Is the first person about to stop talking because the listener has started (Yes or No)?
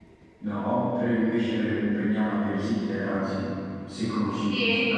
Yes